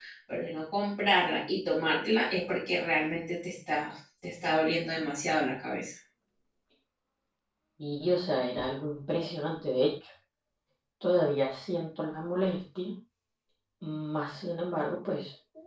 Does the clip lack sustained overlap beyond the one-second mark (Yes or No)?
Yes